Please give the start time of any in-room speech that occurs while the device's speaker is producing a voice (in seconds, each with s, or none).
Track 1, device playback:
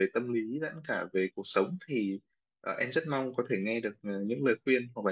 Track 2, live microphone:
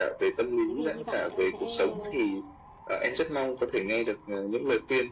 0.7 s